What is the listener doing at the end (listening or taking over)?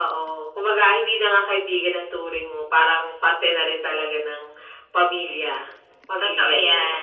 taking over